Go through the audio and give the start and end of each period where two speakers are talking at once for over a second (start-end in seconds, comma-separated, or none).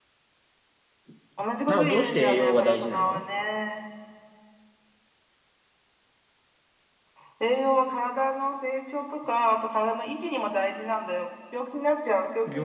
1.7-3.2